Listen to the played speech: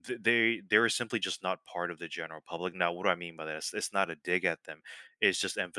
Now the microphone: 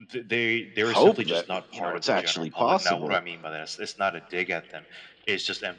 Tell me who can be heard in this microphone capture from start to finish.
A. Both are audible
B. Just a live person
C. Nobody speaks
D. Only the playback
A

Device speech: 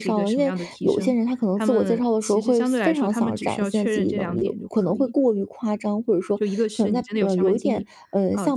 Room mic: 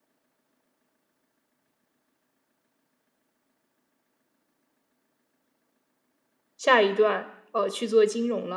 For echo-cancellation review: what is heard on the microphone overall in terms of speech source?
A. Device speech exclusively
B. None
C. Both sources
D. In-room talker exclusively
D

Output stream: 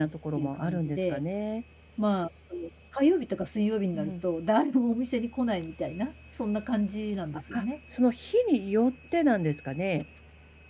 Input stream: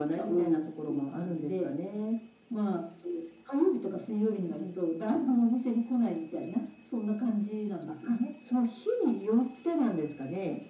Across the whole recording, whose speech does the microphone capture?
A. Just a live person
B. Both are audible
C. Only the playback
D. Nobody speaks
C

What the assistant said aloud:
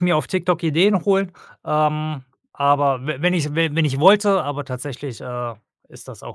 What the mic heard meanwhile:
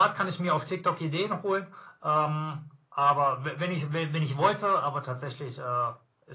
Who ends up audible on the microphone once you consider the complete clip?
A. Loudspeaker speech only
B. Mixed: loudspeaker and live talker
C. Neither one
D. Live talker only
A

